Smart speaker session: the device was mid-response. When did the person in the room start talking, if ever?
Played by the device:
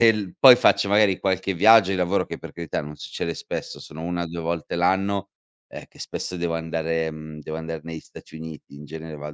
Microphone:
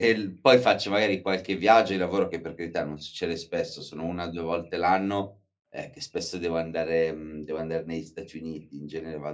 none

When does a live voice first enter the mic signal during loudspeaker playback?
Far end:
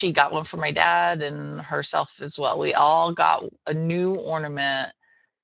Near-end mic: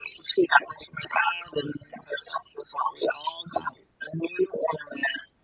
none

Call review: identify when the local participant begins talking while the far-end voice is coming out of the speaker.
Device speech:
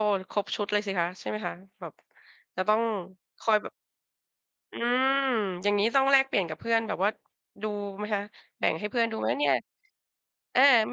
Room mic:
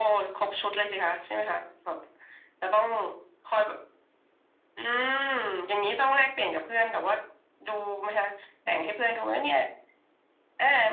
none

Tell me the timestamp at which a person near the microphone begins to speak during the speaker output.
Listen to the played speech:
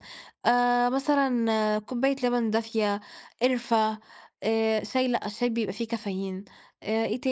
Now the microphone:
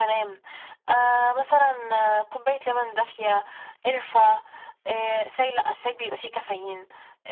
none

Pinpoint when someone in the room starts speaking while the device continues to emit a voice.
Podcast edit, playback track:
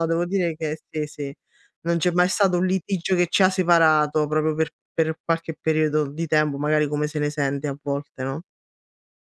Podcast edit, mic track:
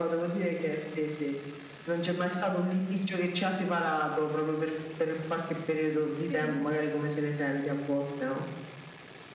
6.2 s

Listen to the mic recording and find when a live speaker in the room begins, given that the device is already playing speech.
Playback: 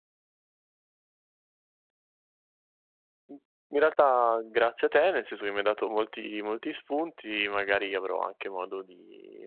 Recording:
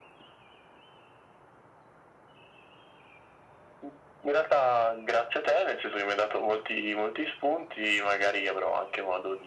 none

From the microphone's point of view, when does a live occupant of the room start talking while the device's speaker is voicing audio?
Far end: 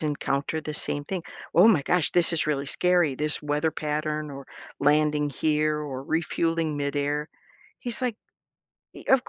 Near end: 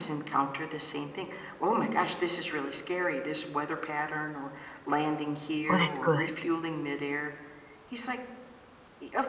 5.7 s

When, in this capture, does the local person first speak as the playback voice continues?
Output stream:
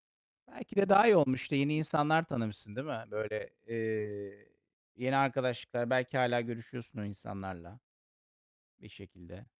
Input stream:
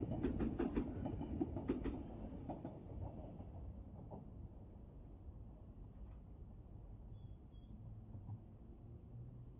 none

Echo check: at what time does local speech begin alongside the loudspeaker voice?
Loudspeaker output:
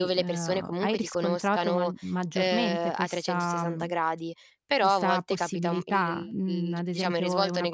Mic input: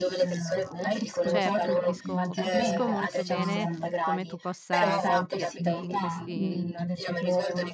1.3 s

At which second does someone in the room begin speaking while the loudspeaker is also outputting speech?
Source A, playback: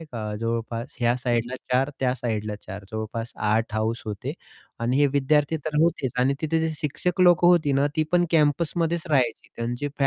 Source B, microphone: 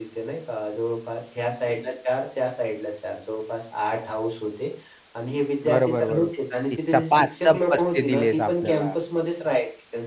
5.7 s

